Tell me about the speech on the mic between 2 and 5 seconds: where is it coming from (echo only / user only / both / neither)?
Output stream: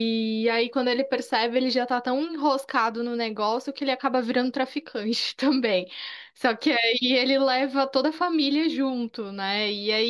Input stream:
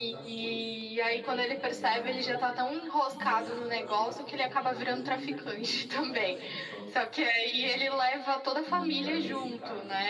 both